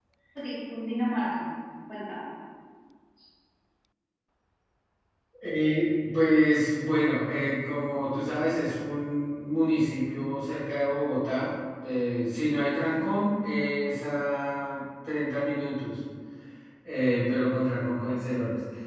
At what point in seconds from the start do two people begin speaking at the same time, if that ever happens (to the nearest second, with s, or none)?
none